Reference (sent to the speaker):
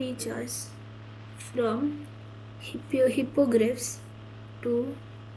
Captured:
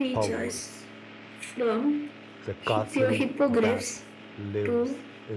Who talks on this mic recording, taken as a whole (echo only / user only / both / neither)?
both